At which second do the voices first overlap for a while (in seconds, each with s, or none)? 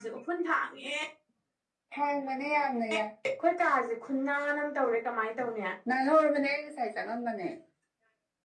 none